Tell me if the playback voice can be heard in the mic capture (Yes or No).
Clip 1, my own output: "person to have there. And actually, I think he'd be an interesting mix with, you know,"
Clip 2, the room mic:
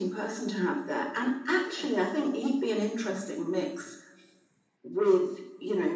Yes